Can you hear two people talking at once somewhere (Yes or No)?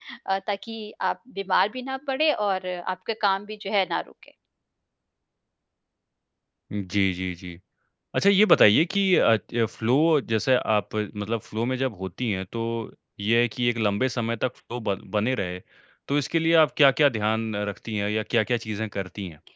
No